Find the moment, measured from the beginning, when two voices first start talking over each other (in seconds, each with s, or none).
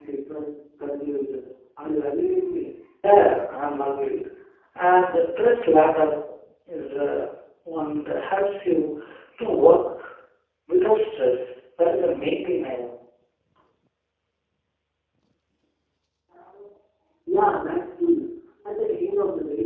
none